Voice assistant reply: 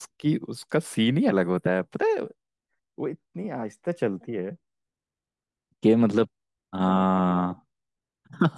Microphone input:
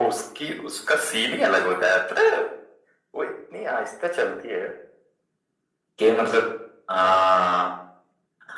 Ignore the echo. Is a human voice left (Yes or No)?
No